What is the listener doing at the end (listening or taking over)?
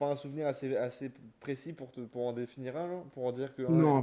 taking over